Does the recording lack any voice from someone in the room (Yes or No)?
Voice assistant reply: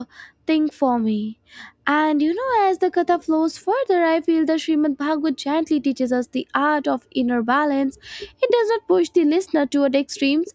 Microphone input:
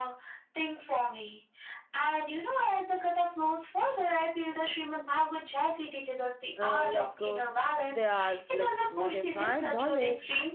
No